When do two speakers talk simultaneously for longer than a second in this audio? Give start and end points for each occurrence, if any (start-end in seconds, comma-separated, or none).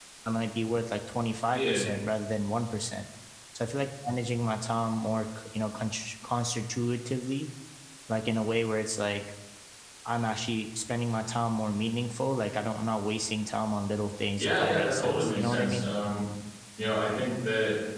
14.4-15.9